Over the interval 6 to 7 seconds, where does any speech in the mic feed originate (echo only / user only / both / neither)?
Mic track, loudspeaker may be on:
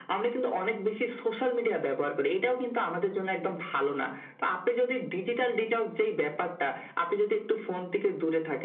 echo only